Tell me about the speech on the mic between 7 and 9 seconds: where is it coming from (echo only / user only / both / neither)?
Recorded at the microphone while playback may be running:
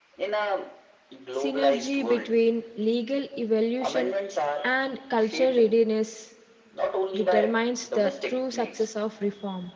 both